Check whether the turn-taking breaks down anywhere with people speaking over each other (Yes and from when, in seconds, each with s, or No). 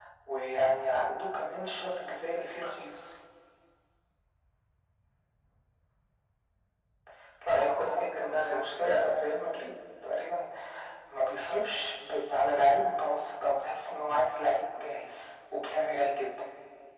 Yes, from 7.5 s